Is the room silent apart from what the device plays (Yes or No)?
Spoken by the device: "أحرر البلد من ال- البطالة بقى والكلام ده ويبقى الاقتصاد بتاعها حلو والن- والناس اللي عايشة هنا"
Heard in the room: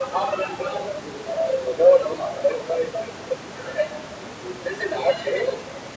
Yes